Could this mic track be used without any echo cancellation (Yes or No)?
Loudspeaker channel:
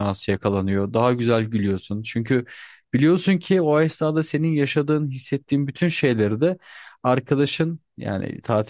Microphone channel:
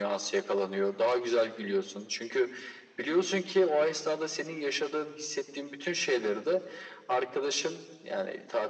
No